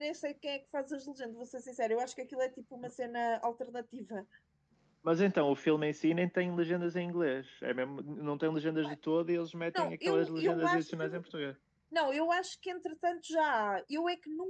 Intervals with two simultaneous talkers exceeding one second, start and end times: 9.7-11.2

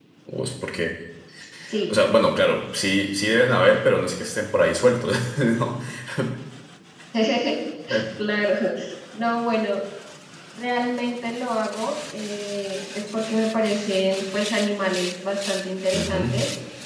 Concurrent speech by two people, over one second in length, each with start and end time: none

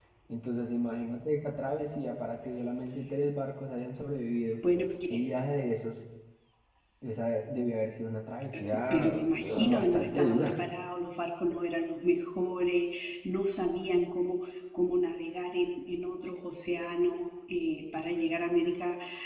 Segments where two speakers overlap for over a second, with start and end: 8.9-10.6

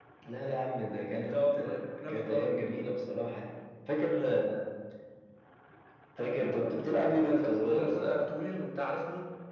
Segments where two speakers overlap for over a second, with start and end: 1.3-2.5, 6.2-8.2

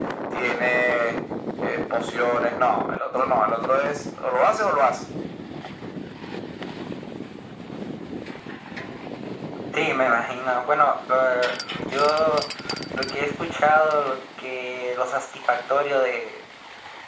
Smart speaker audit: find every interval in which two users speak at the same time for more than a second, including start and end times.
none

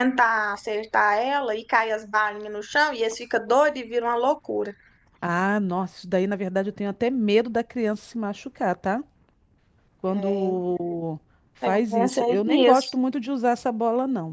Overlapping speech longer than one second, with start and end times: 11.7-12.9

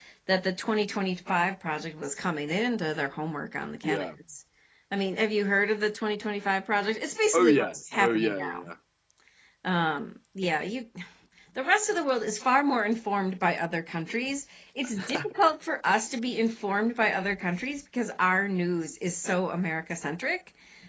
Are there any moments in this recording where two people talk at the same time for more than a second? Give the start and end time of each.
7.3-8.7

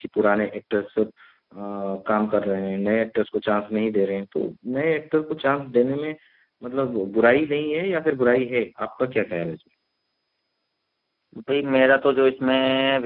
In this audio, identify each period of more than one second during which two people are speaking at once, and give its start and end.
none

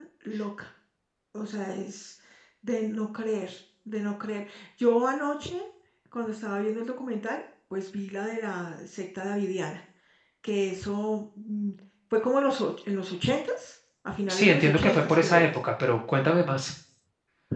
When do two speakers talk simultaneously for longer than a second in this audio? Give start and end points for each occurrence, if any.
14.3-15.5

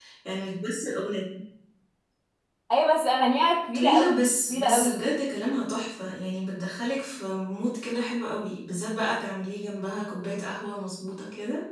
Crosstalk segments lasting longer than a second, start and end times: 3.7-5.0

